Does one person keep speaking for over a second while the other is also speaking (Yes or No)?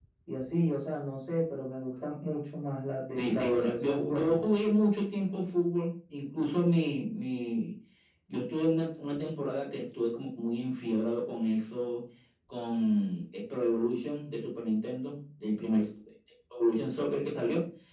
Yes